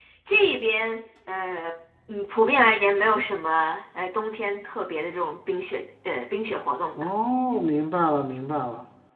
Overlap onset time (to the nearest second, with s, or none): none